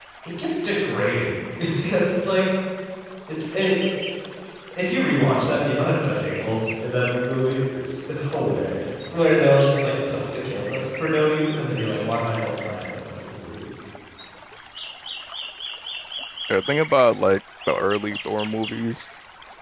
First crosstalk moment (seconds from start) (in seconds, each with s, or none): none